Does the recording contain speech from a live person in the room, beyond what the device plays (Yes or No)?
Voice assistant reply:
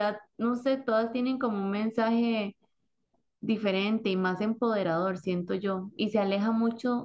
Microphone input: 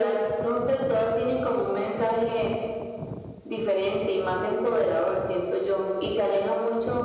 No